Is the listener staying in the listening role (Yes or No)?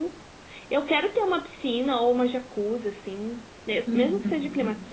Yes